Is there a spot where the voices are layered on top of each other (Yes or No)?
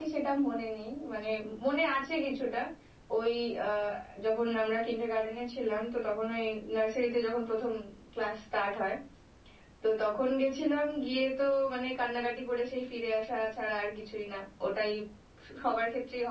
No